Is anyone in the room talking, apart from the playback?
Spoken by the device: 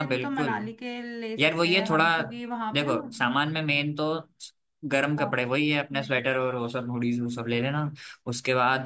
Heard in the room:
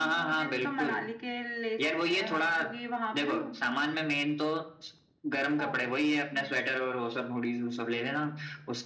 No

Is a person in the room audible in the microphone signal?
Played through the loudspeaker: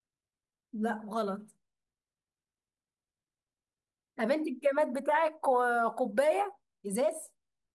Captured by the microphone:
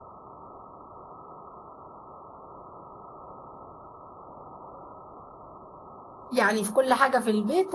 Yes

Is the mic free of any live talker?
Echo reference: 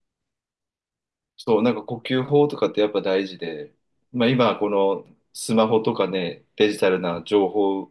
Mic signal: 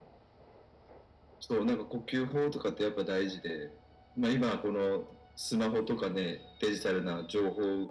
Yes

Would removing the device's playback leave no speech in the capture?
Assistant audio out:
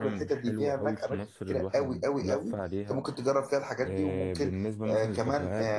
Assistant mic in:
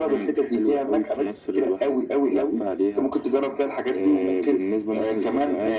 Yes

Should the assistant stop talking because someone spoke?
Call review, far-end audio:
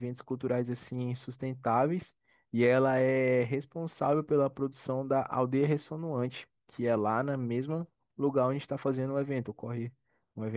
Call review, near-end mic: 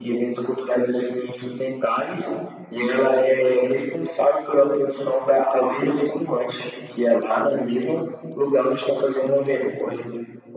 No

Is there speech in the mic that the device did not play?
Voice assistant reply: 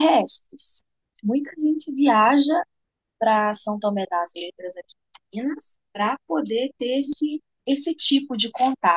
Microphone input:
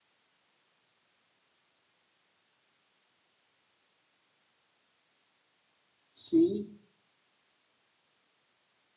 Yes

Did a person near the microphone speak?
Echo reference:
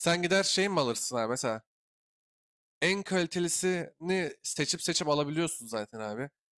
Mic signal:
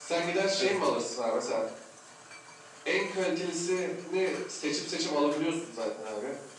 Yes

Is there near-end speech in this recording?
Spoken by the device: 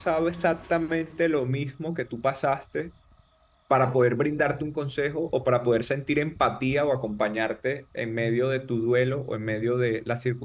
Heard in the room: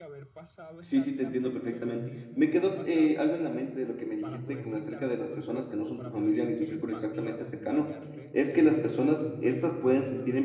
Yes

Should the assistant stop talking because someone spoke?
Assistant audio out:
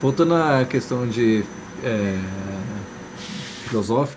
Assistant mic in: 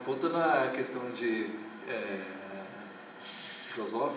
No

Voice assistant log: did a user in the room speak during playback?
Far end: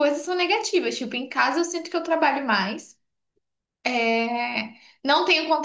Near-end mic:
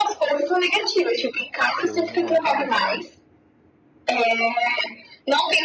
Yes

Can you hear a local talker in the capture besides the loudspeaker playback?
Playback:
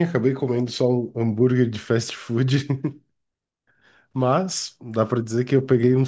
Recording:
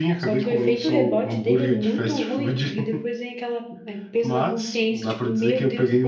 Yes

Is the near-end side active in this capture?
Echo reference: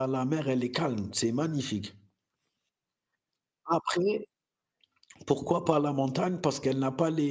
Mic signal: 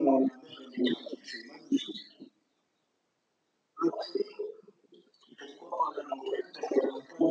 No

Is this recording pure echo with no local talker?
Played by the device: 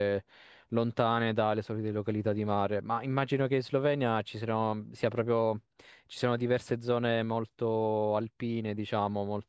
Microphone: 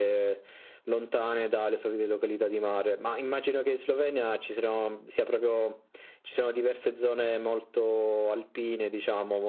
Yes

